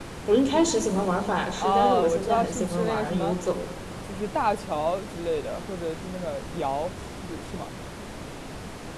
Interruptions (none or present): present